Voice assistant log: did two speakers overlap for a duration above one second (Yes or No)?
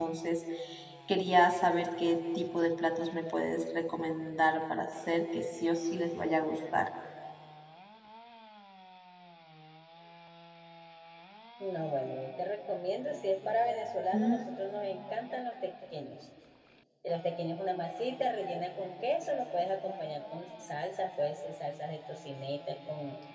No